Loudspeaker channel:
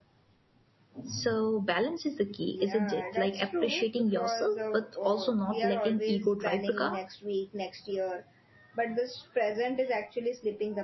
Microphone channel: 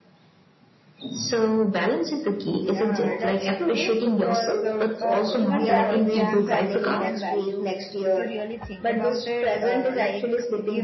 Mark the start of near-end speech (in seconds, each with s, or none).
5.0 s